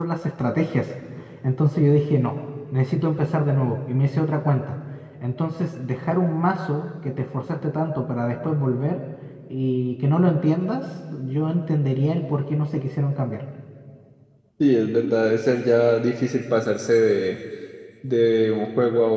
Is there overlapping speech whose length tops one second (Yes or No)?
No